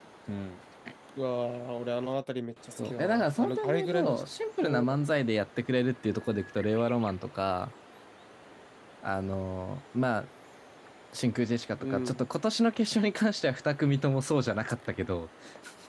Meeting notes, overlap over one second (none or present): present